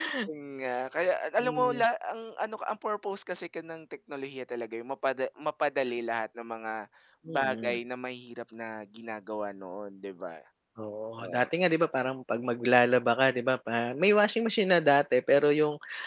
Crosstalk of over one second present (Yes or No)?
No